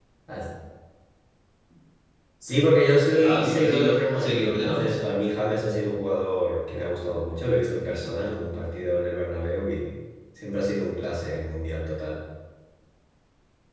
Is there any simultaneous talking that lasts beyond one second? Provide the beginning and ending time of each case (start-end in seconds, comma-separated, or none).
3.2-5.0